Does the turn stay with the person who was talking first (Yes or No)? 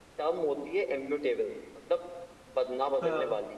Yes